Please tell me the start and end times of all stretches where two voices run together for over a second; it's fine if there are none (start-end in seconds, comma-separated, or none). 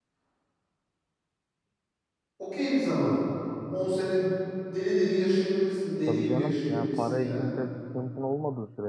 6.1-7.4